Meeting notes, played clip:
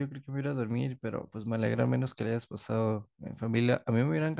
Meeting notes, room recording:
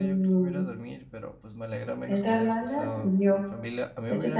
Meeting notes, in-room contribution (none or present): present